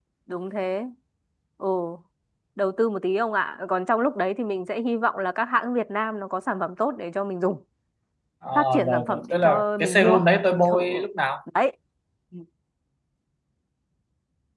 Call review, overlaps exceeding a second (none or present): present